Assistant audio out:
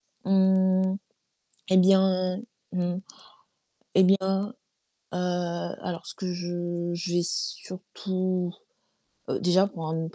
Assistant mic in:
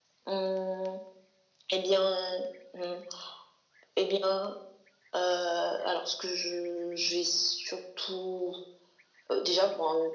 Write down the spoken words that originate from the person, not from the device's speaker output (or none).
none